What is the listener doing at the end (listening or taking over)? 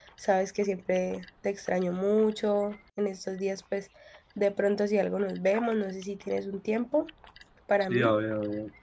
taking over